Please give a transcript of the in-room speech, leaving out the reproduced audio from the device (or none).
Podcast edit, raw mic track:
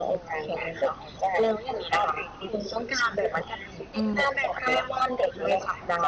อืม